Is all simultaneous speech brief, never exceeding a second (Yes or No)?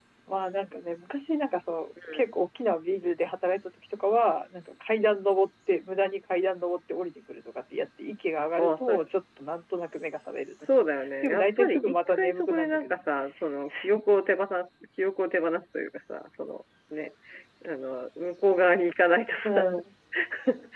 No